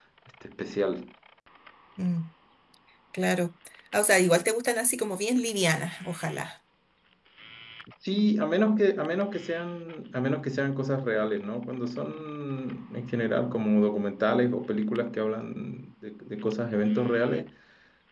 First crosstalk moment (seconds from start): none

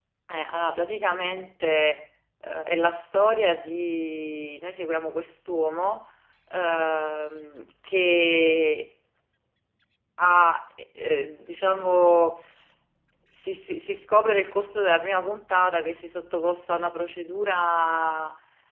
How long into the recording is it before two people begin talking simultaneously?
none

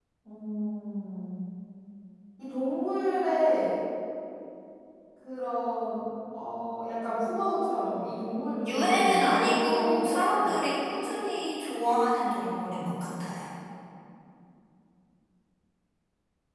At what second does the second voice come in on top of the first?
9 s

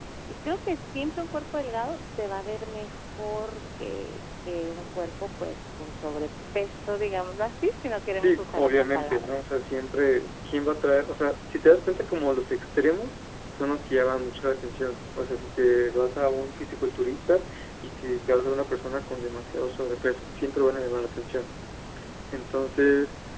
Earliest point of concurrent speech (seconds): 8 s

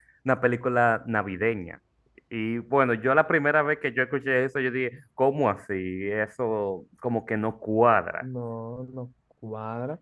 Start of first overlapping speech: none

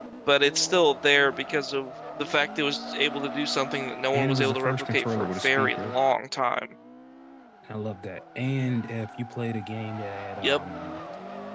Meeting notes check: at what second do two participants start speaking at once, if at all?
4 s

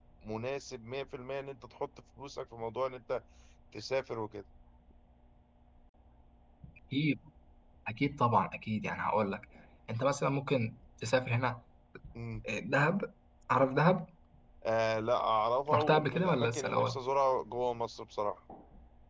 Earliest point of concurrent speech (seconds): 16 s

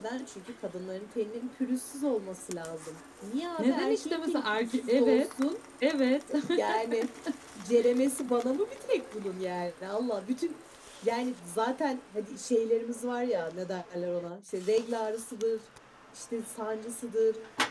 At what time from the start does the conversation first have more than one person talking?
4 s

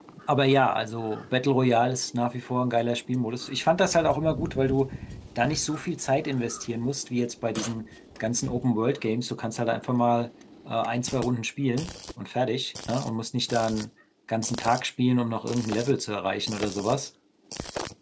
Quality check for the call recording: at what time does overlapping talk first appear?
none

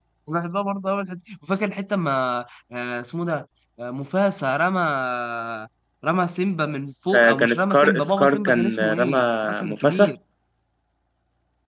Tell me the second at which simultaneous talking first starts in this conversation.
7 s

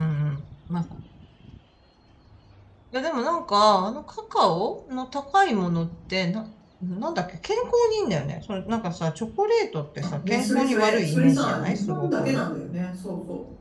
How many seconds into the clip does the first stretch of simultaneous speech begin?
10 s

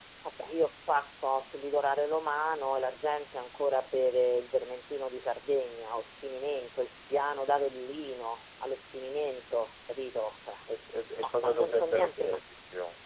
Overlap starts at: 11 s

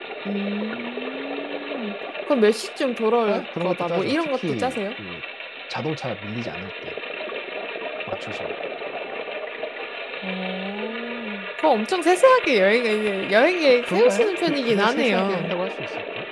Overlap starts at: 3 s

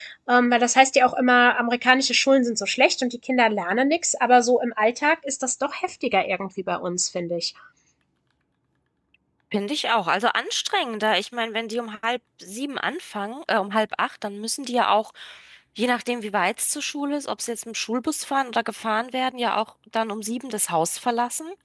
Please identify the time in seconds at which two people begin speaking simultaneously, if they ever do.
none

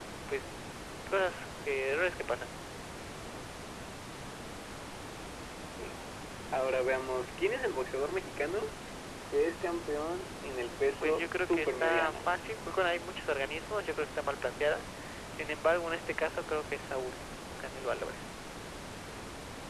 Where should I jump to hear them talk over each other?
11 s

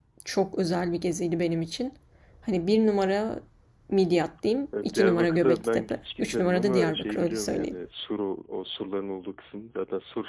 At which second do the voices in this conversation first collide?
5 s

